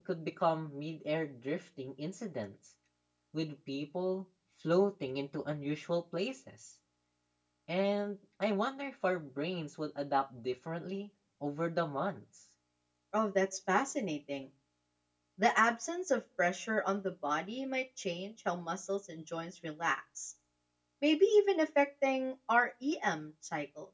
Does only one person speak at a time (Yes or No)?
Yes